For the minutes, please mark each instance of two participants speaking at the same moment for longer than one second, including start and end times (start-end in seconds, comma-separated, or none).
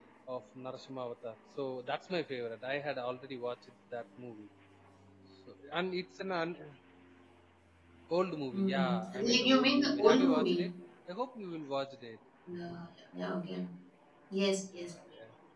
8.5-10.7